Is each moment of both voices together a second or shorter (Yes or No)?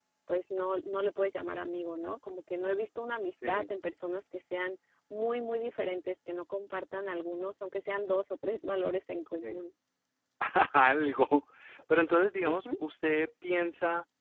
Yes